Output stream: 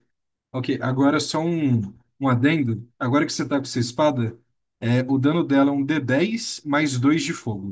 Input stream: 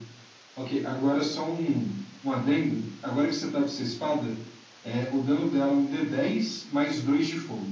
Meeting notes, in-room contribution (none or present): none